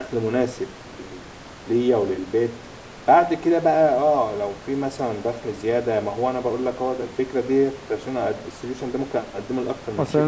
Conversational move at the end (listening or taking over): taking over